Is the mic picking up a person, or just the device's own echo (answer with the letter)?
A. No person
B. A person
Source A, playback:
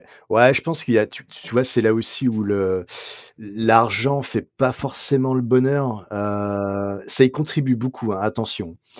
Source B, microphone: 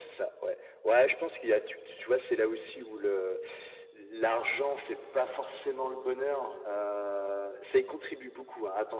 A